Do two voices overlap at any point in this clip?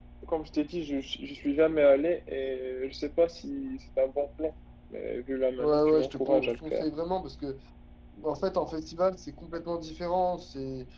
Yes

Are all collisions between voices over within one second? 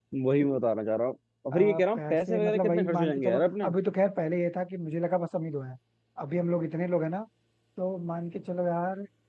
No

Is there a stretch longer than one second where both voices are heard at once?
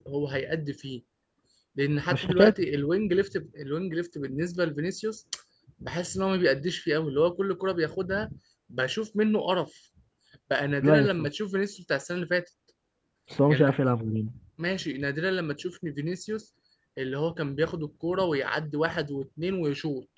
No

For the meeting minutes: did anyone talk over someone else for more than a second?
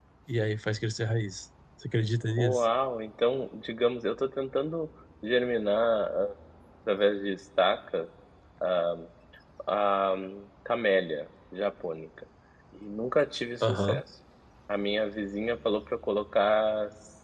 No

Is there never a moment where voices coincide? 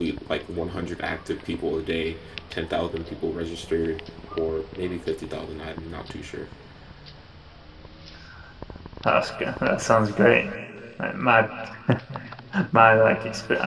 Yes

